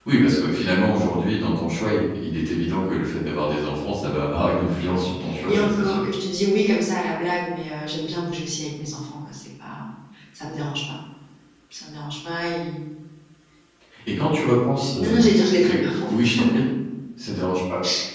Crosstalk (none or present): present